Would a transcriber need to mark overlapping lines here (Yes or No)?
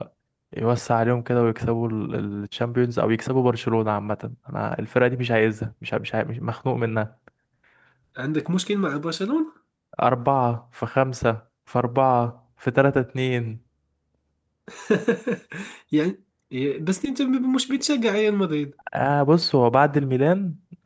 No